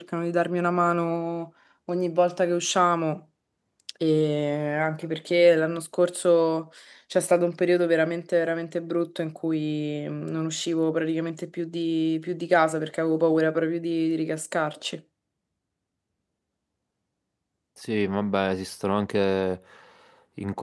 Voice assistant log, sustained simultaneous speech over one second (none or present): none